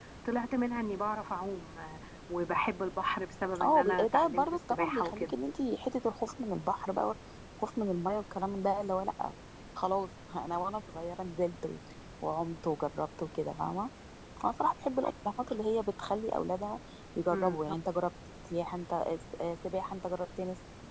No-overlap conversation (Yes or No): No